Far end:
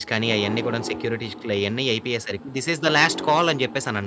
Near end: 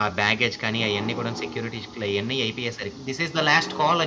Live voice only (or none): none